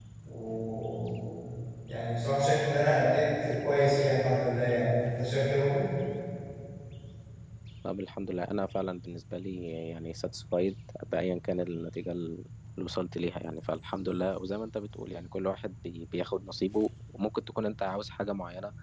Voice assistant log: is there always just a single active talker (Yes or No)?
Yes